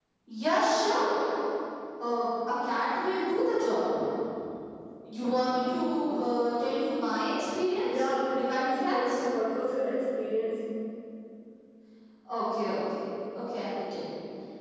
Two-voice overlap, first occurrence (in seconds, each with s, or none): 7.8 s